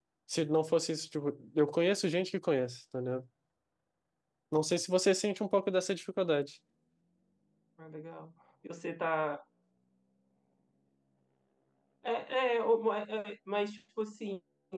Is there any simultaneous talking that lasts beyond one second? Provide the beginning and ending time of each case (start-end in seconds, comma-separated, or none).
none